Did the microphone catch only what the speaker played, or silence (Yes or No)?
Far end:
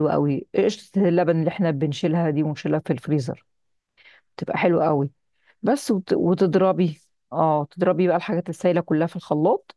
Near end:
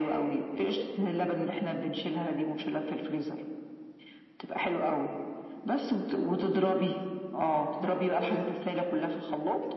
No